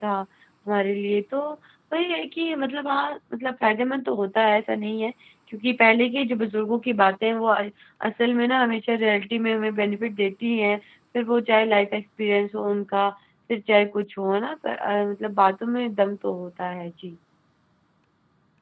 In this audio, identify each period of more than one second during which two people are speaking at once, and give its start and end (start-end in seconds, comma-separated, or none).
none